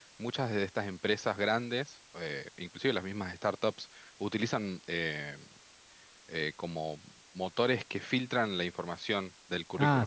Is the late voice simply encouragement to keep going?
No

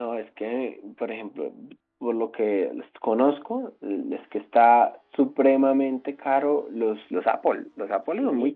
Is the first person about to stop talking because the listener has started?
No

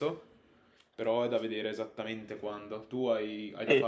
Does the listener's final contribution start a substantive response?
Yes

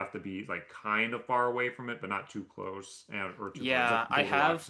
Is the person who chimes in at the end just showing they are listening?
No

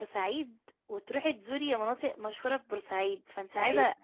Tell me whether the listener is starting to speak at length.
No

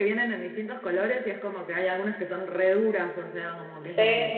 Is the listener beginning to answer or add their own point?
Yes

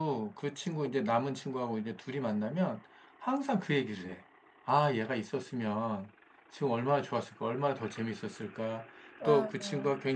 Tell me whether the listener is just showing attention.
Yes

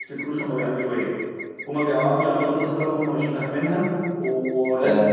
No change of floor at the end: Yes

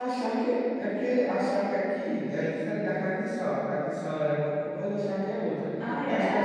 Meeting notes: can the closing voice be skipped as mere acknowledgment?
Yes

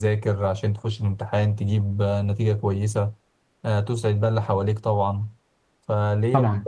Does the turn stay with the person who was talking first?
Yes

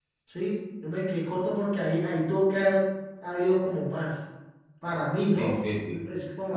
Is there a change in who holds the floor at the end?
Yes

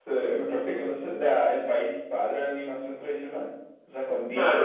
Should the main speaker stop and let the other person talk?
Yes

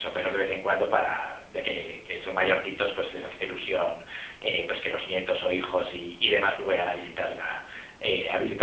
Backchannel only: Yes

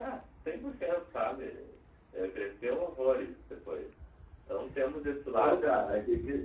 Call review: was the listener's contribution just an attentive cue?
No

